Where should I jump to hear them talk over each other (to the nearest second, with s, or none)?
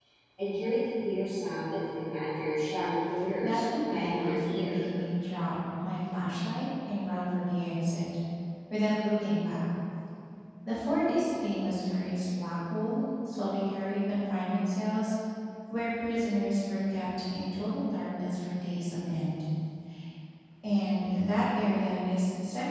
3 s